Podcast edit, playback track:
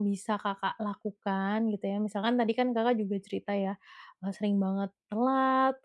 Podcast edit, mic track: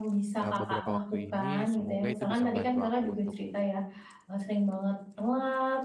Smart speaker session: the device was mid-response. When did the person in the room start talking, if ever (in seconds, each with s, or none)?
0.4 s